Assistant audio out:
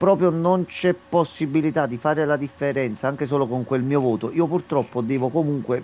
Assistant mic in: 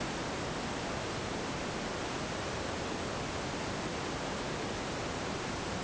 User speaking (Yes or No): No